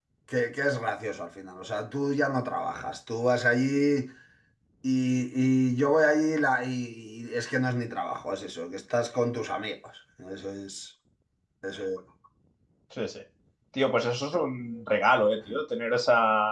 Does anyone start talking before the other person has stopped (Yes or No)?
No